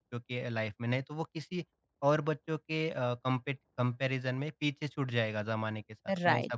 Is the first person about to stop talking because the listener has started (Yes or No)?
Yes